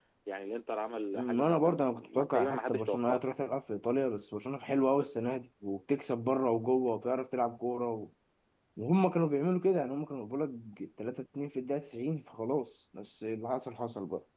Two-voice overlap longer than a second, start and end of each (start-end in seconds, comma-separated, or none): 1.2-3.2